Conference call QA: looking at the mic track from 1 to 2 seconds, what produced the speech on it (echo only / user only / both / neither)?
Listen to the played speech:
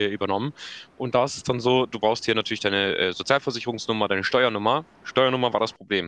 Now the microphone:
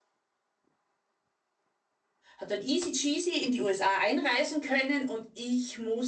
neither